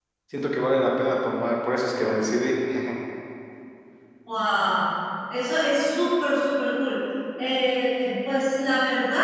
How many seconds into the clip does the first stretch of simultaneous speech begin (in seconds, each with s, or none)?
none